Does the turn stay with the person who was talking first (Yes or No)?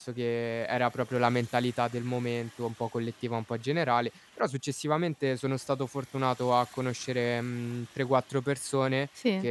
Yes